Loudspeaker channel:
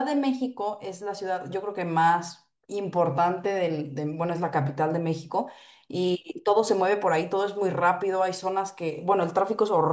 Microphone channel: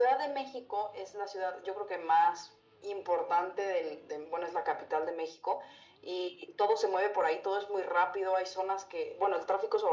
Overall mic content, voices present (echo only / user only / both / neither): echo only